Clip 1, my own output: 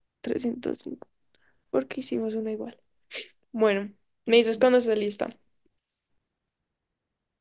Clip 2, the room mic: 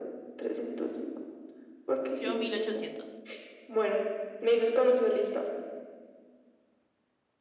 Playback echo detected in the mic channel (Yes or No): Yes